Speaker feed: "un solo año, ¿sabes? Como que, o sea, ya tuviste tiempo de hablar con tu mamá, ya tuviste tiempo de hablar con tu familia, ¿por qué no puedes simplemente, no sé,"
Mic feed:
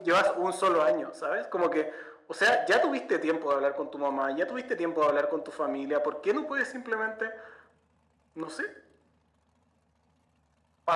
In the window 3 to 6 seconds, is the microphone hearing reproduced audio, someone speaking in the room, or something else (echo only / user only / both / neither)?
echo only